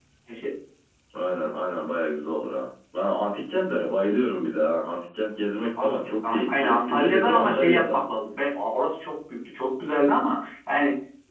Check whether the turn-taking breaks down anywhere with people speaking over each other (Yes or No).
Yes